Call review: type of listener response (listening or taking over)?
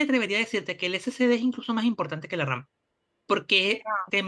listening